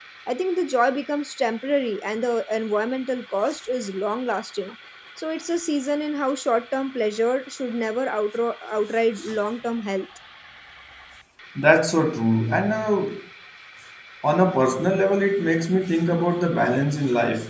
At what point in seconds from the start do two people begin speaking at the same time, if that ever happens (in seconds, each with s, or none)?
none